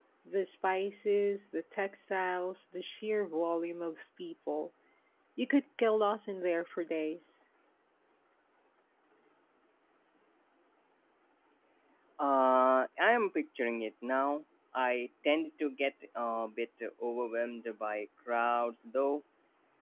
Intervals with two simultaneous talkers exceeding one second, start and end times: none

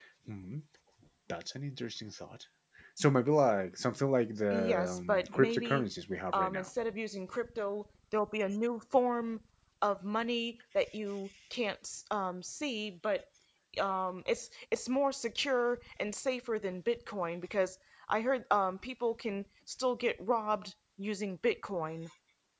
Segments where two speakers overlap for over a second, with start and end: 4.5-5.8

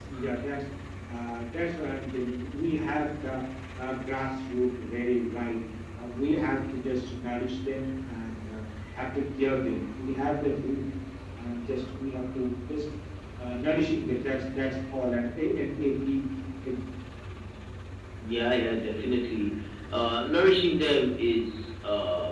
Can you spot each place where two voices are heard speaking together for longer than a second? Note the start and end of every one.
none

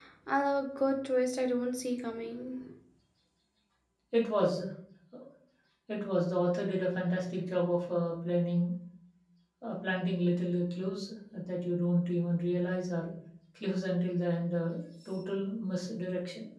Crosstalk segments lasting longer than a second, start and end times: none

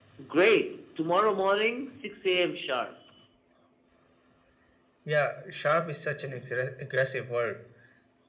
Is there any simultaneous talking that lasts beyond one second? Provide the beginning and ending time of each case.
none

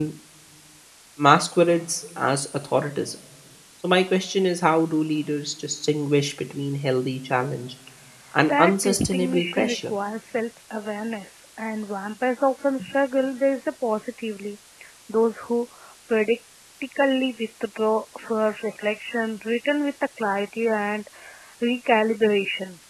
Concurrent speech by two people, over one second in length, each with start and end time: 8.5-9.9

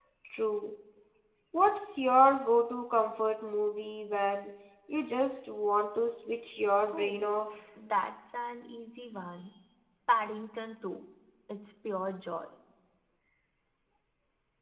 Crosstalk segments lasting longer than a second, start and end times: none

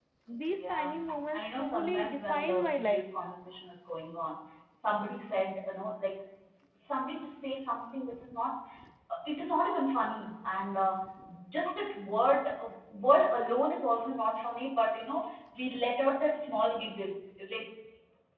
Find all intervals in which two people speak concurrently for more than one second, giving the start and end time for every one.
1.3-3.1

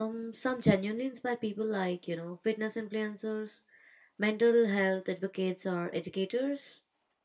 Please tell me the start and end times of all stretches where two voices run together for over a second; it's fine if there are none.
none

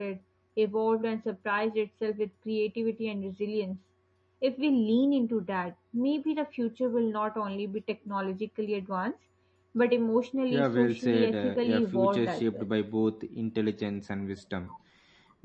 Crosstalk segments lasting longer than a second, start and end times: 10.5-12.7

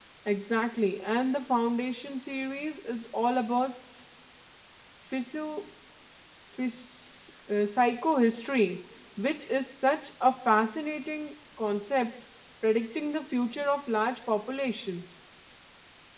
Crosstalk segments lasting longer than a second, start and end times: none

